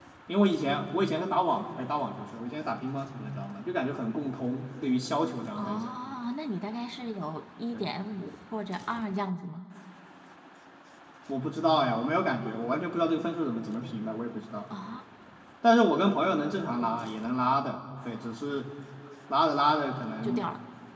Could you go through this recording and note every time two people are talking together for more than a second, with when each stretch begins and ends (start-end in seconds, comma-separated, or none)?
none